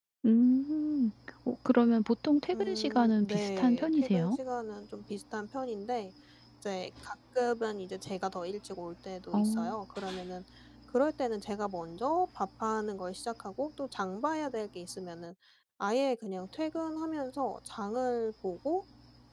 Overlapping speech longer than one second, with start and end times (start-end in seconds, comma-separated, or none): 2.5-4.4